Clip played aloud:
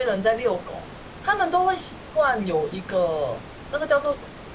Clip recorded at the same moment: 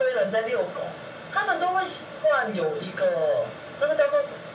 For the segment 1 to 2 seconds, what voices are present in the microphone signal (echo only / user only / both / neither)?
echo only